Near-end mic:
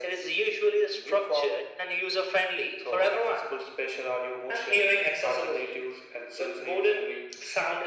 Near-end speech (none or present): none